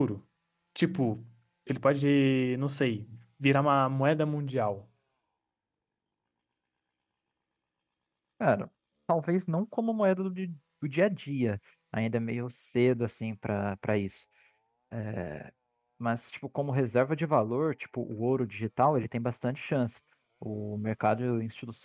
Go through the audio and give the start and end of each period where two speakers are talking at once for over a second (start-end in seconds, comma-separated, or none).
none